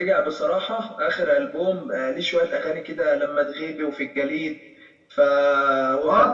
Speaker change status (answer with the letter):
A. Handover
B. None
A